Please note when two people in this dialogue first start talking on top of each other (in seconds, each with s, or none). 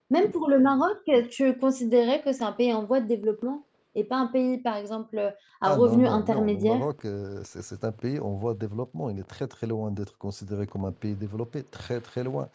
5.6 s